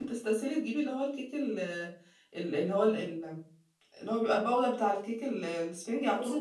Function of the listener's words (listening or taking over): taking over